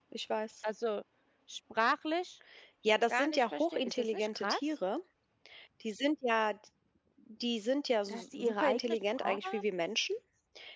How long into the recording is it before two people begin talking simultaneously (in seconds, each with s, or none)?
3.1 s